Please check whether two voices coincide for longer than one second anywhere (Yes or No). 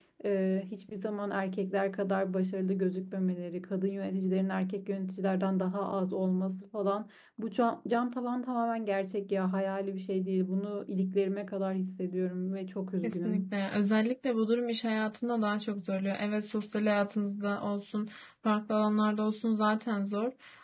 No